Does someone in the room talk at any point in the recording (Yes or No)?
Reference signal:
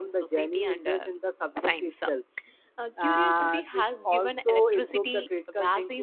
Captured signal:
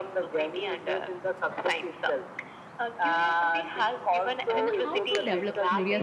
Yes